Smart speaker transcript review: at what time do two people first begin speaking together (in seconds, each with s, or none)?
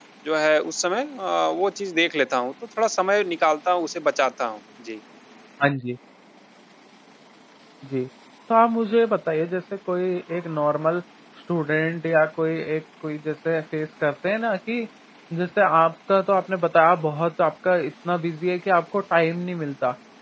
none